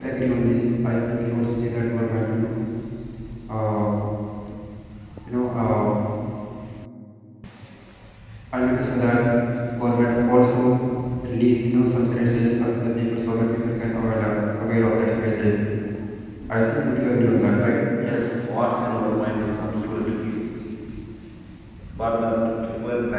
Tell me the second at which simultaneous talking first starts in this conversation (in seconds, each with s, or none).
none